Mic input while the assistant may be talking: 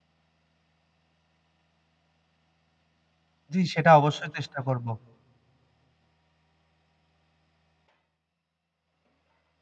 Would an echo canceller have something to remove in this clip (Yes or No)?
No